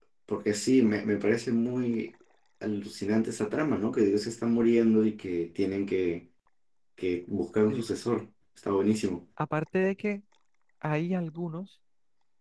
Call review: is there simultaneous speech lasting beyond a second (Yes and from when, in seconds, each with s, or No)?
No